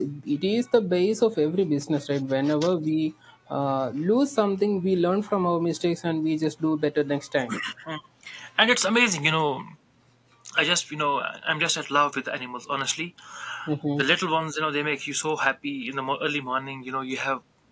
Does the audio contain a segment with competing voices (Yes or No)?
No